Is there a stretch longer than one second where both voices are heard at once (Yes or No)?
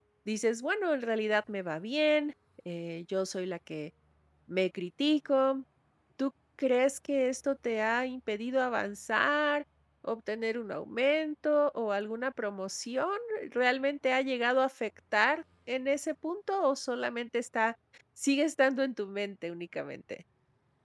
No